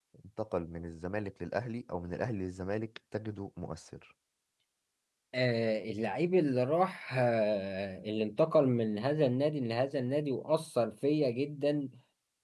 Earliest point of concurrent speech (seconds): none

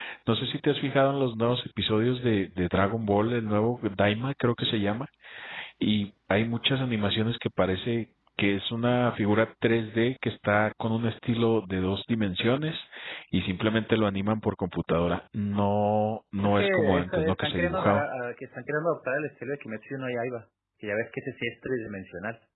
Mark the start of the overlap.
16.4 s

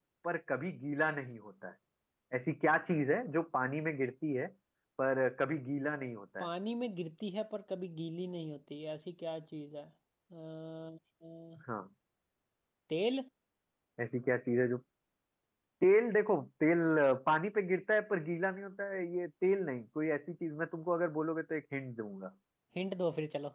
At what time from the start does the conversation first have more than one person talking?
none

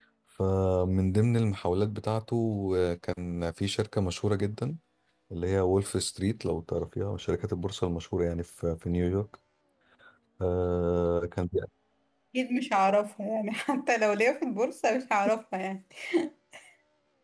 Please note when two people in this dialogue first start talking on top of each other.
none

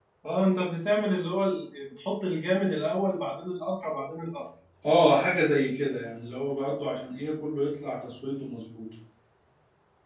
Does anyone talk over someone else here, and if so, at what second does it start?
none

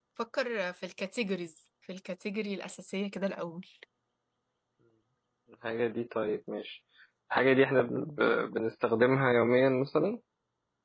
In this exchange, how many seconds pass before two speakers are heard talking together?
none

